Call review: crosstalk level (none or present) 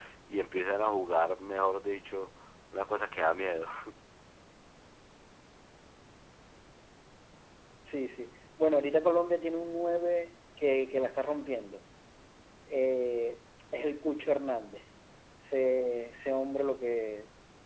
none